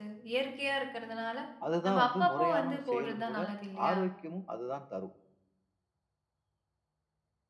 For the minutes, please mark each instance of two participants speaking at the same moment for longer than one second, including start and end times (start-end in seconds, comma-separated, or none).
1.9-3.4